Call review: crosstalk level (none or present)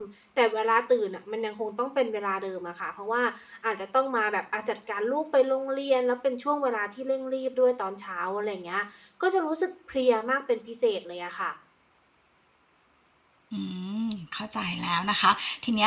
none